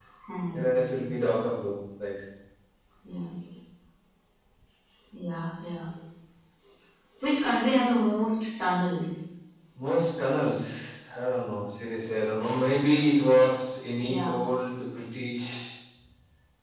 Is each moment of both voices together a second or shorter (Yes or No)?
Yes